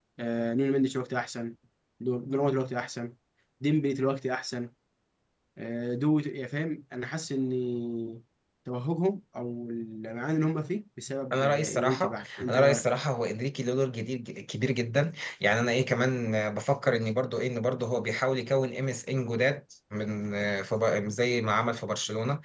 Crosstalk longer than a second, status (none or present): present